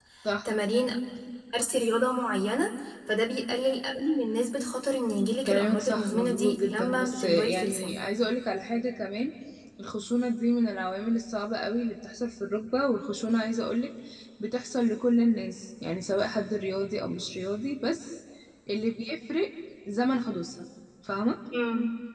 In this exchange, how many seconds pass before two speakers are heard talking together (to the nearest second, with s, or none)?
5 s